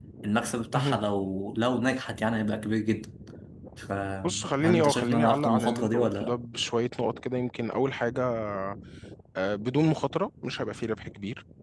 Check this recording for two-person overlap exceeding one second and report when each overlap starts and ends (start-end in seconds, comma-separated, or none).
4.2-6.3